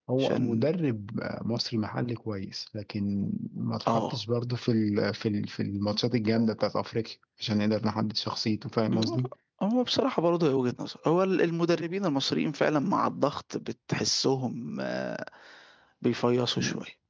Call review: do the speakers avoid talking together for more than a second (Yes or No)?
Yes